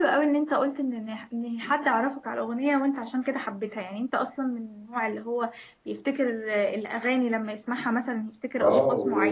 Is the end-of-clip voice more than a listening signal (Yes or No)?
Yes